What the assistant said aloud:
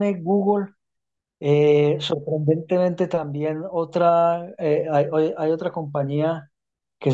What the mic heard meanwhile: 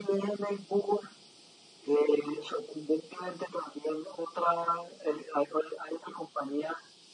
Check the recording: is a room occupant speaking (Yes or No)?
No